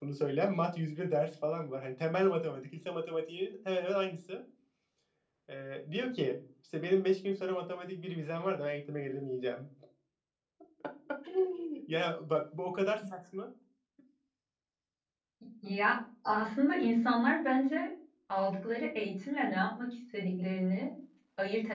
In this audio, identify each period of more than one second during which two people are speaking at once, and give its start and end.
none

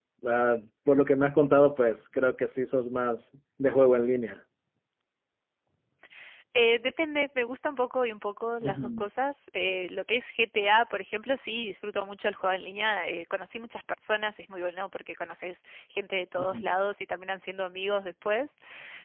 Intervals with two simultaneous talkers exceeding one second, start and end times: none

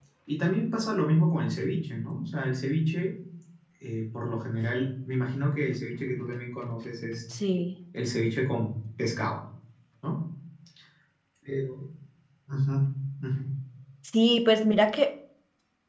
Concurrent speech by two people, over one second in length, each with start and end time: none

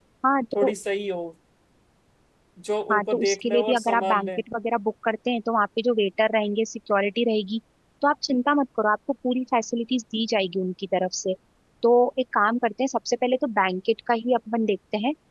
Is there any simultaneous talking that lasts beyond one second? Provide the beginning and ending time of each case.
2.9-4.4

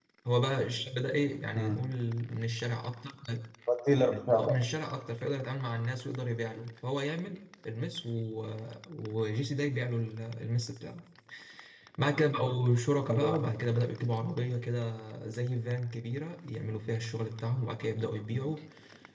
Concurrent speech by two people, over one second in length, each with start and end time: none

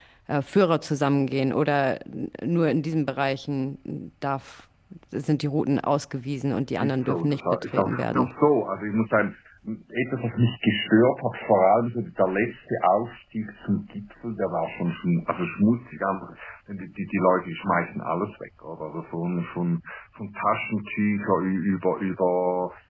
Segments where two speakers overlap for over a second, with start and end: 6.7-8.3

